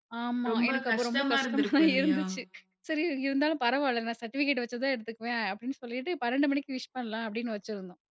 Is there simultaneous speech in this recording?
Yes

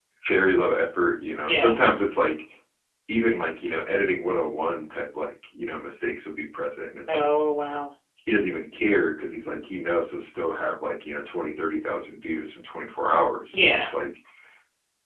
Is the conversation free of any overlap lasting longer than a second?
Yes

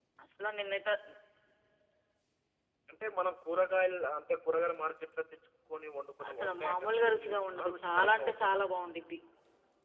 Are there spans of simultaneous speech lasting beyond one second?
Yes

